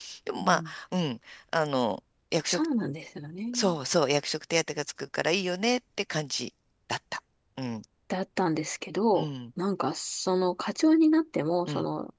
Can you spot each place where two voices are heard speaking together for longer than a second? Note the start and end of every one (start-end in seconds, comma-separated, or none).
none